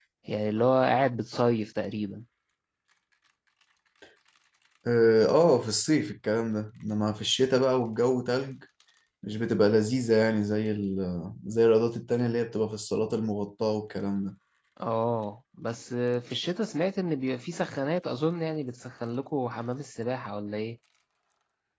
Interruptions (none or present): none